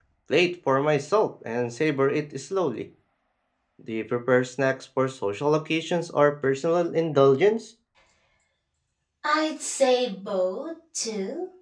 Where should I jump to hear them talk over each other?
none

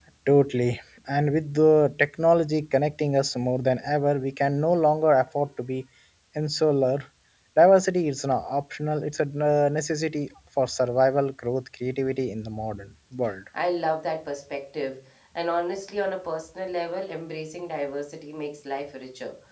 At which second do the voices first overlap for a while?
none

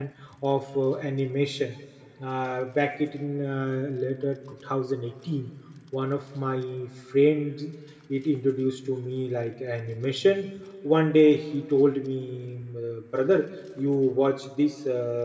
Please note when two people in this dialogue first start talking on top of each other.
none

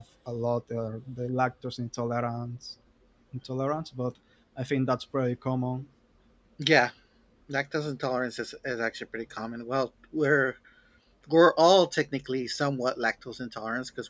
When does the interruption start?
none

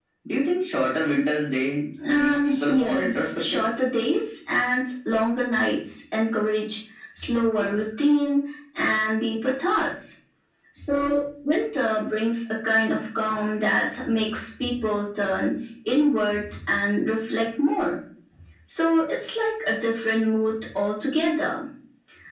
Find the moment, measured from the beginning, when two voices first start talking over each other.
2.2 s

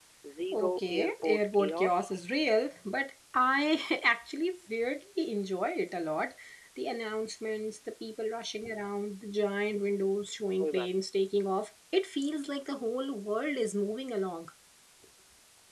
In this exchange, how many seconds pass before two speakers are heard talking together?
0.5 s

